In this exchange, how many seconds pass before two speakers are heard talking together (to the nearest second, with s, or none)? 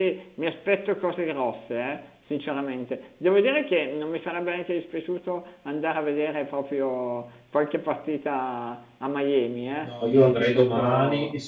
10 s